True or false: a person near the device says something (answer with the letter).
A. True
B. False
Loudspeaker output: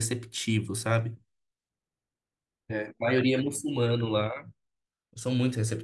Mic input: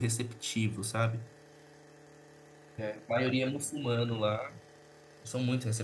B